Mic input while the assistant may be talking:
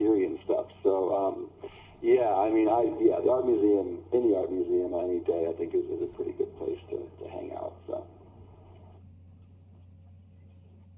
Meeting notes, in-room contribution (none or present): none